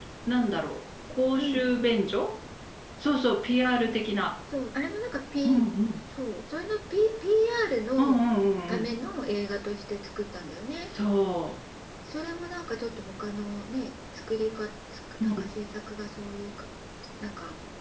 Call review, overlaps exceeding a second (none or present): none